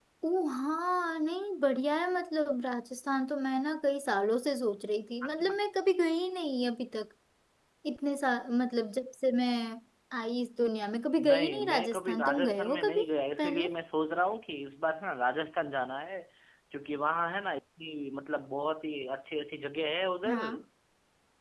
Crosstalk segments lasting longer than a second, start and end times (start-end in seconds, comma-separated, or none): 11.3-13.0